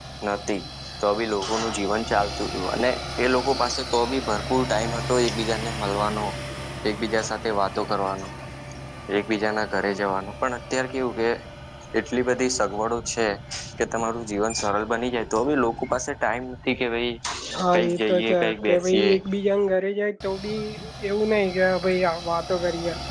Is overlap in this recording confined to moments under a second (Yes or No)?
No